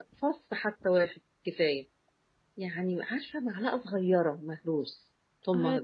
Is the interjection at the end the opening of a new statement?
Yes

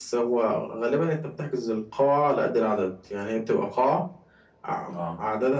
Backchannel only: Yes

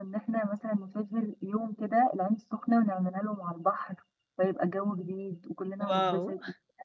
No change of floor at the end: No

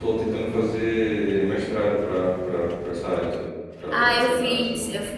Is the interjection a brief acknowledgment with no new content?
No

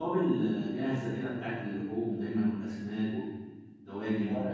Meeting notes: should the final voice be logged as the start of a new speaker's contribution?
Yes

